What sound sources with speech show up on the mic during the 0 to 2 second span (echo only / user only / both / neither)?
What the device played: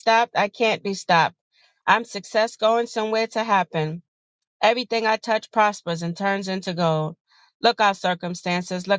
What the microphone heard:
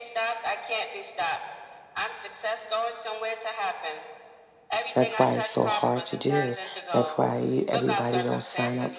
echo only